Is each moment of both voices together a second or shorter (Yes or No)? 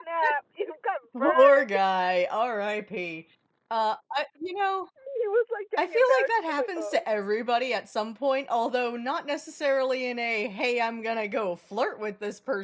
No